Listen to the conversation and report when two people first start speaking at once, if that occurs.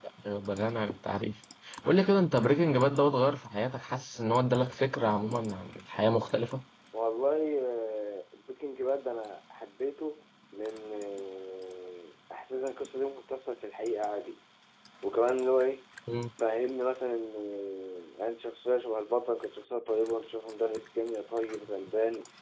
none

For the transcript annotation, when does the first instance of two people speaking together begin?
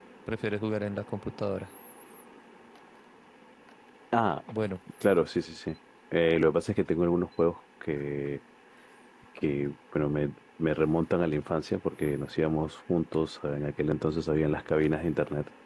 none

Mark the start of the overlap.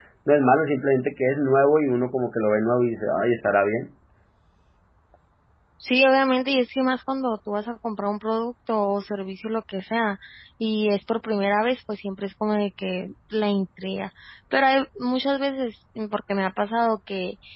none

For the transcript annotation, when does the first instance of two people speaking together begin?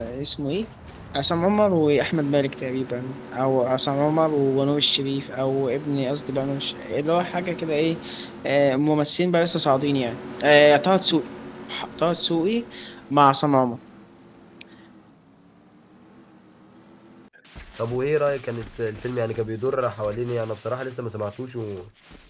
none

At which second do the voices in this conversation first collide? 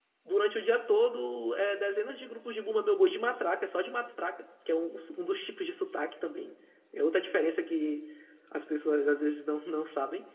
none

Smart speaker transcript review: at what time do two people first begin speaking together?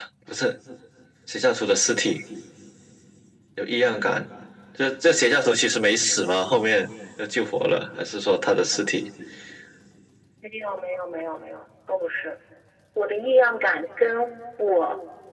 none

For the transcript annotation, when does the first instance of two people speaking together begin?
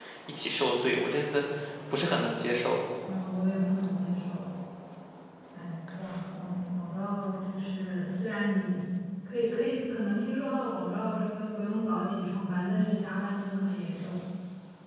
none

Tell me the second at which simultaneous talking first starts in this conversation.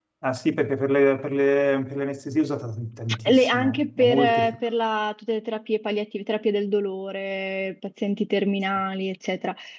3.1 s

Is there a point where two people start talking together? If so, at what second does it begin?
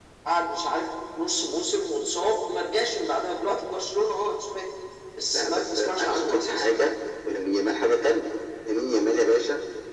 5.3 s

